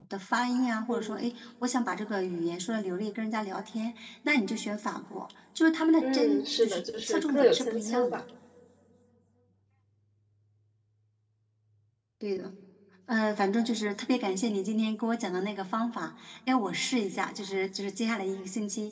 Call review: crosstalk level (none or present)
present